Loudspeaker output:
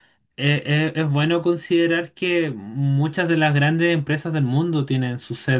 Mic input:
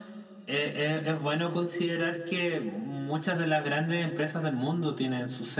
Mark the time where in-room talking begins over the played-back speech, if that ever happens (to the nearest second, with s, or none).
none